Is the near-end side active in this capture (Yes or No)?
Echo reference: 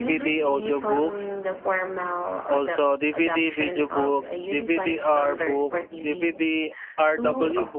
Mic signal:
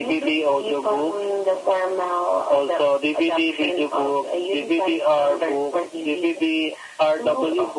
No